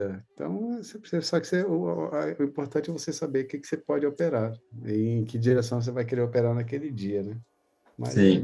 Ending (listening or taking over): taking over